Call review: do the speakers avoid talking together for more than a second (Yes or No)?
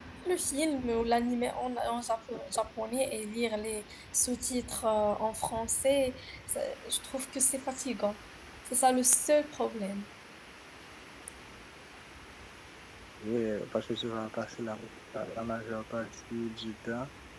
Yes